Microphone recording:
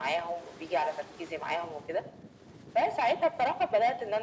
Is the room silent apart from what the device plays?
Yes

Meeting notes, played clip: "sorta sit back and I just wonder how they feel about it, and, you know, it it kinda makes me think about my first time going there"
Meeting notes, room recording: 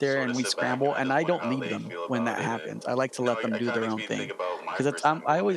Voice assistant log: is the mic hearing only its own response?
No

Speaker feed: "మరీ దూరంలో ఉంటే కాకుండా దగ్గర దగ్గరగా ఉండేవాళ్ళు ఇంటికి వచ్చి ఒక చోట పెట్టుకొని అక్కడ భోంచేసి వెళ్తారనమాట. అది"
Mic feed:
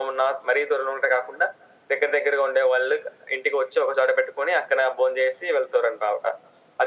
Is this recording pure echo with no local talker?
Yes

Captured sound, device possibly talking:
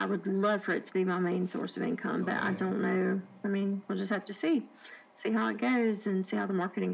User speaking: Yes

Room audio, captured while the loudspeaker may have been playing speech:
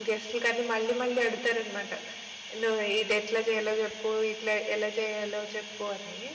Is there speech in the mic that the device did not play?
Yes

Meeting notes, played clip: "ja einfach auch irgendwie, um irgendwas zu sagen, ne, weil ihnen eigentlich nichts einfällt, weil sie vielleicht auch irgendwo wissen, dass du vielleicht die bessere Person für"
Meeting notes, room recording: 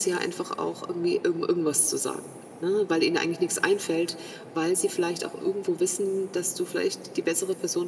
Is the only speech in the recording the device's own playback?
Yes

